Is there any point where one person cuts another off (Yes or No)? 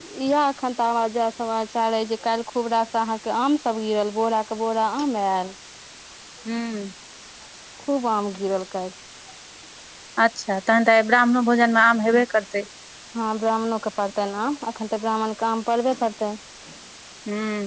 No